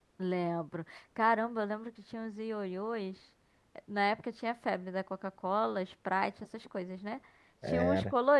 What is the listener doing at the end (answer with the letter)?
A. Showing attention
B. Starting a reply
A